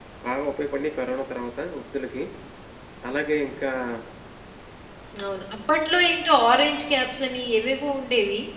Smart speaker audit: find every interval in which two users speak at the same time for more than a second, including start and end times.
none

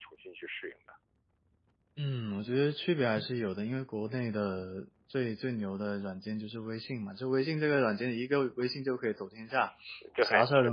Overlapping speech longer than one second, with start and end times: none

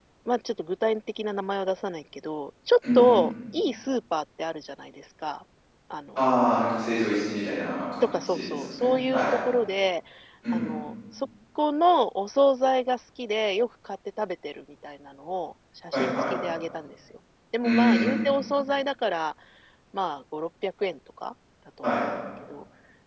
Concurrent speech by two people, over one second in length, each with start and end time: 8.0-9.2

